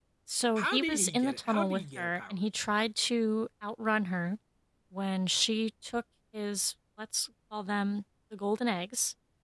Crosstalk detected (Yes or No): Yes